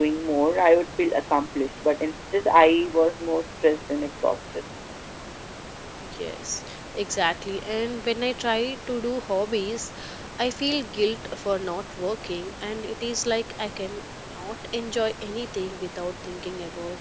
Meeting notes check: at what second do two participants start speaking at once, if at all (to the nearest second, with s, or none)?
none